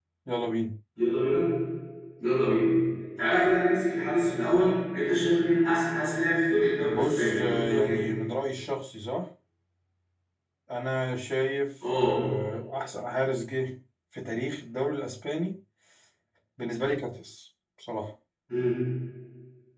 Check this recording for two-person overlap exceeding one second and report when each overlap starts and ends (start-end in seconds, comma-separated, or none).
6.8-8.0